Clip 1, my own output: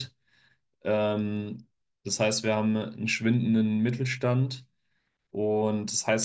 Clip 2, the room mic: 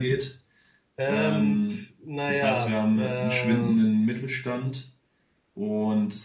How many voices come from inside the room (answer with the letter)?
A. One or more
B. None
A